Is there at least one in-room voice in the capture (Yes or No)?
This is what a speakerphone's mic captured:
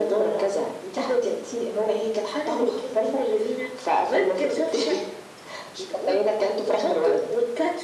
No